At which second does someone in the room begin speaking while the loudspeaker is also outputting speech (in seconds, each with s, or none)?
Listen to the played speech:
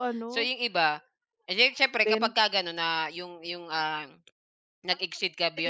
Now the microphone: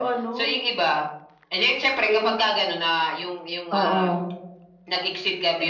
3.7 s